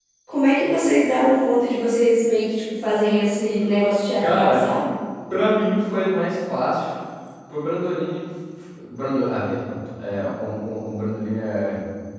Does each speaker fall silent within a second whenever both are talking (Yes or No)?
Yes